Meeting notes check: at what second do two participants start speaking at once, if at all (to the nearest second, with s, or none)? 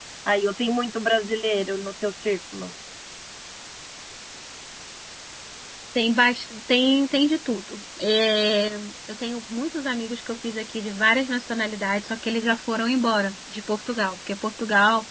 none